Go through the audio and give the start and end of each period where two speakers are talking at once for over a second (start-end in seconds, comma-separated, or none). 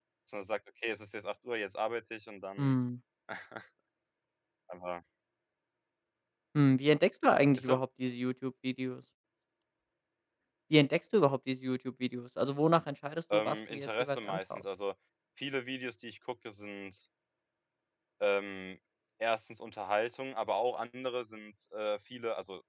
13.3-14.6